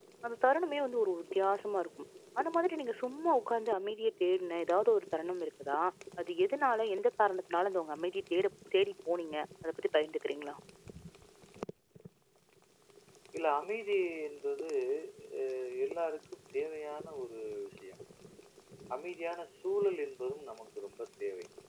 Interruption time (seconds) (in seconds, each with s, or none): none